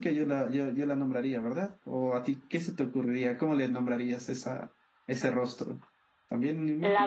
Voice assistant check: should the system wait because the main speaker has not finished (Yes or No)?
No